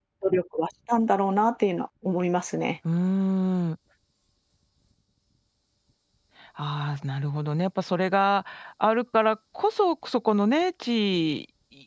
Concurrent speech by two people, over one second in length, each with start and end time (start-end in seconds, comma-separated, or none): none